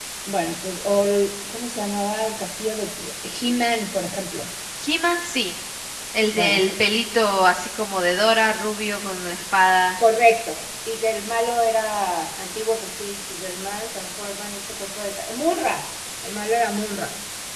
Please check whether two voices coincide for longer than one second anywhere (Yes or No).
No